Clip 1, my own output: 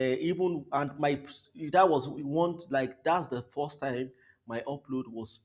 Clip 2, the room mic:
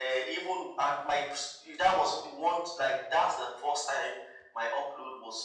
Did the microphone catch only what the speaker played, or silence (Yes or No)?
Yes